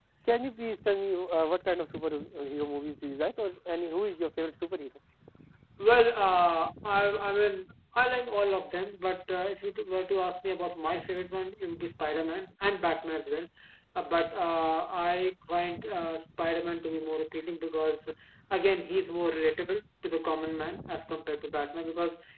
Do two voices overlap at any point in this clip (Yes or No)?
No